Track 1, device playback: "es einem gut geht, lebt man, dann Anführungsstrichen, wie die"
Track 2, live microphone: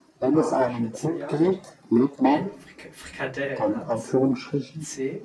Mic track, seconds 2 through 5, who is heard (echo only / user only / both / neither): both